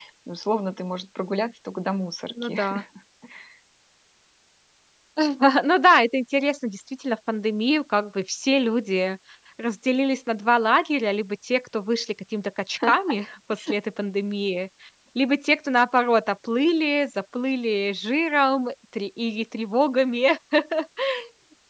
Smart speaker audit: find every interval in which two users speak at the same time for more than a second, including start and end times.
none

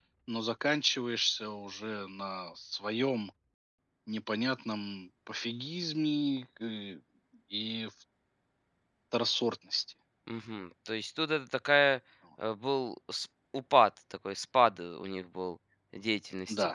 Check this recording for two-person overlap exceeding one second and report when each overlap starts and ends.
none

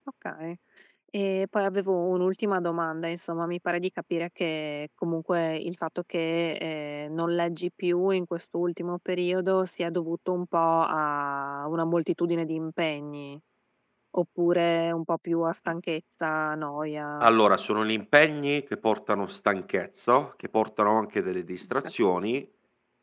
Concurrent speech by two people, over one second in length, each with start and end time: none

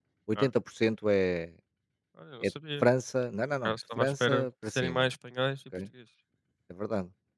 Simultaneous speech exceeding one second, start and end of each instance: 3.6-5.1

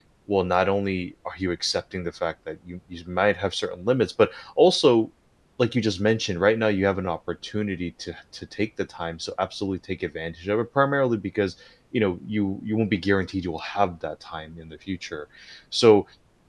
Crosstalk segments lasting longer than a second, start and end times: none

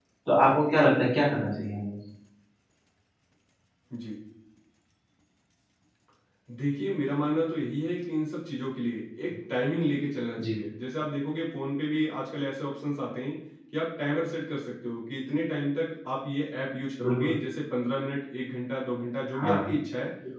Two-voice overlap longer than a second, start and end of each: none

